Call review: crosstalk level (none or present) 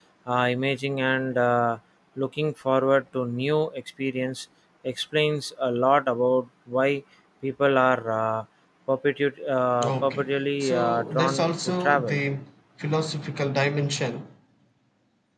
present